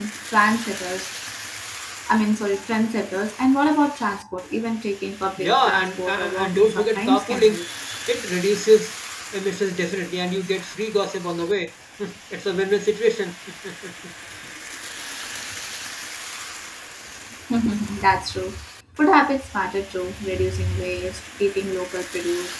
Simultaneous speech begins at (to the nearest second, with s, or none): 5 s